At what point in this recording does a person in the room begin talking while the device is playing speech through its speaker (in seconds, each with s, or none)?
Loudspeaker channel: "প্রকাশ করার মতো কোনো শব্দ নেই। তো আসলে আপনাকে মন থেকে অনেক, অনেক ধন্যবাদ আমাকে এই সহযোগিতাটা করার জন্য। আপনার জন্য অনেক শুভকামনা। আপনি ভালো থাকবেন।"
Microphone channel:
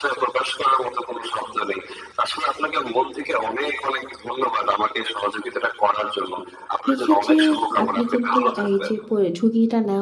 6.9 s